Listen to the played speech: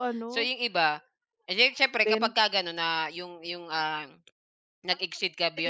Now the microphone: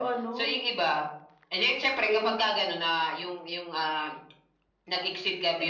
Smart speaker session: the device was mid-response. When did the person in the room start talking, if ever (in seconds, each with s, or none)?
none